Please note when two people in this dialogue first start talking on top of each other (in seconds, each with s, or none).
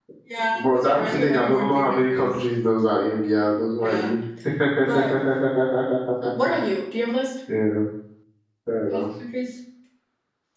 0.5 s